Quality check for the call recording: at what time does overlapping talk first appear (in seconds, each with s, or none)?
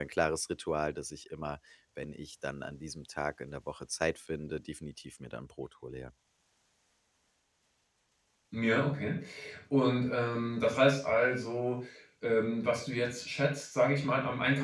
none